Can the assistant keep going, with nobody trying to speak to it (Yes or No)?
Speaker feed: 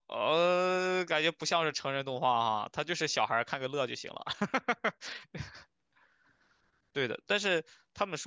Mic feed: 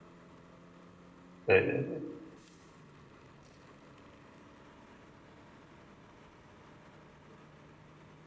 No